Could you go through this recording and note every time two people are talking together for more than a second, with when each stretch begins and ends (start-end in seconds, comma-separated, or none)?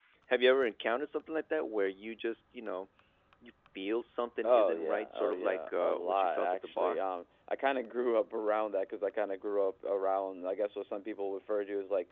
4.4-7.0